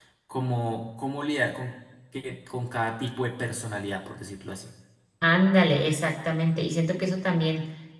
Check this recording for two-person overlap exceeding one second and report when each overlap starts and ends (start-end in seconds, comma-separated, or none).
none